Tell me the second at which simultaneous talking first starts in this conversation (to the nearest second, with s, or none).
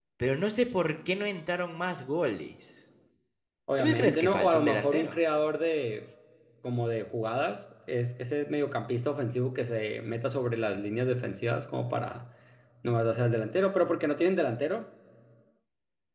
4 s